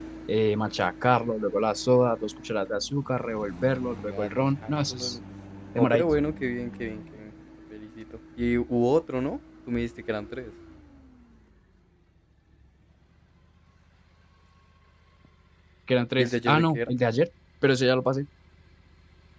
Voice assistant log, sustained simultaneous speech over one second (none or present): present